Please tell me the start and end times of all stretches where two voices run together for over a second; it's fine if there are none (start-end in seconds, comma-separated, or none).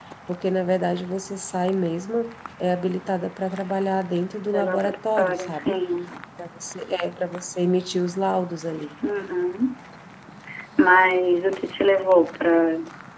4.4-5.8